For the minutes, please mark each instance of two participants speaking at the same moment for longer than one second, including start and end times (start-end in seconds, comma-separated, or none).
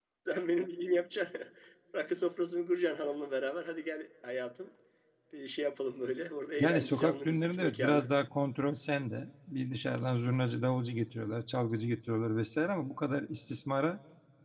6.6-8.1